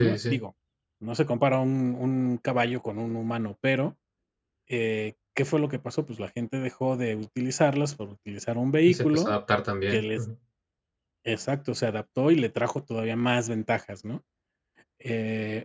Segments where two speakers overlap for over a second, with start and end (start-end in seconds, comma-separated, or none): none